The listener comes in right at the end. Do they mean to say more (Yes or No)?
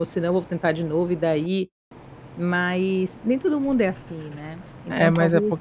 Yes